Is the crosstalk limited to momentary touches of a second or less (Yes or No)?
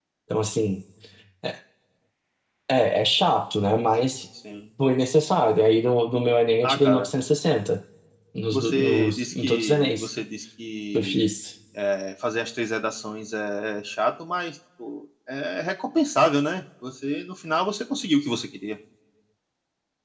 No